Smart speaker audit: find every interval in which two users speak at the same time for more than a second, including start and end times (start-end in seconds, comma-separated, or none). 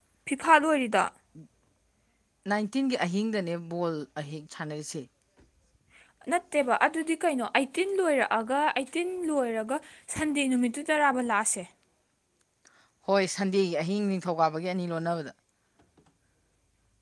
none